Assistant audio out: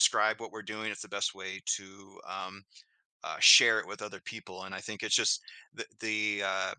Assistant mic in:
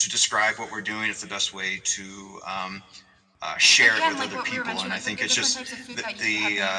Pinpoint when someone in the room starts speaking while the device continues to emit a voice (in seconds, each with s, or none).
3.8 s